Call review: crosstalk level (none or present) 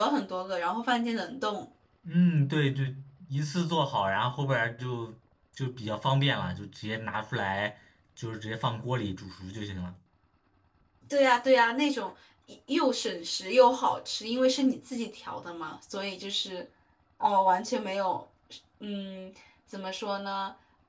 none